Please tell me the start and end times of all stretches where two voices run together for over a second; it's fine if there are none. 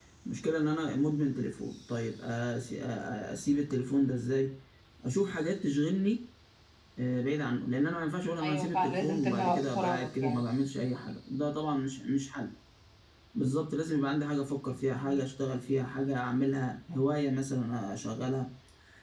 8.4-10.4

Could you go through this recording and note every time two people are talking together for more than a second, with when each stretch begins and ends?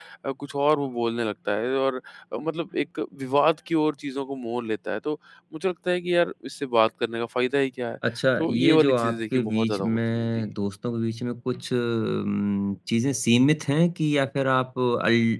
8.4-10.3

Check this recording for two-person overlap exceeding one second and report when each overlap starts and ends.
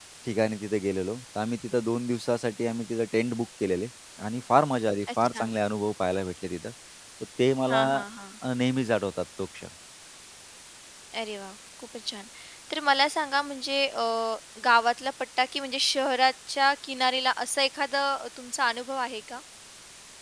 none

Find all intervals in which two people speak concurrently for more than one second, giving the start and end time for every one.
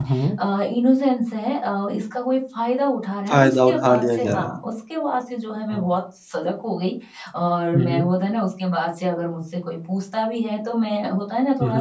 3.3-4.5

